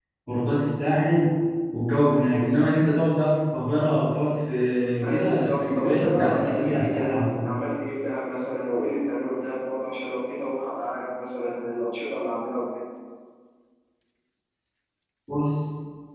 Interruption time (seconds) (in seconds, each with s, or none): 5.0 s